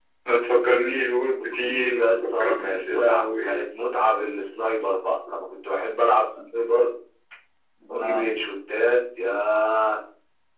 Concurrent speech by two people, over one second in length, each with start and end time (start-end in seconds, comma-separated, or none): 1.4-3.6